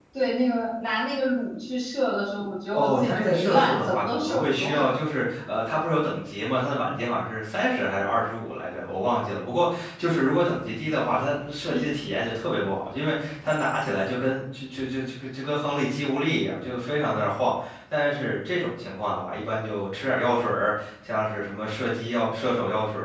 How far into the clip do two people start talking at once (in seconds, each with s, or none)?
2.7 s